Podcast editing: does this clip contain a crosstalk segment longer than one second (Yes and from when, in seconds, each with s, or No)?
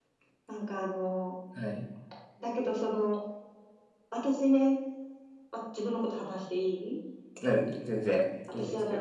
No